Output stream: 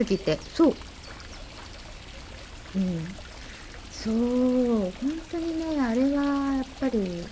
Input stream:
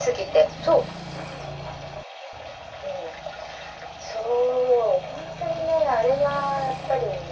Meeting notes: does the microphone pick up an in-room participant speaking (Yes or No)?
No